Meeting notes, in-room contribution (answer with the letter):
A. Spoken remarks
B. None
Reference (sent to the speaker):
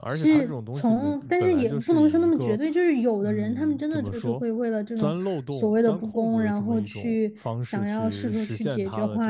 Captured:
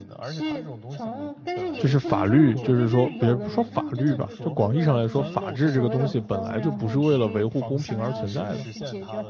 A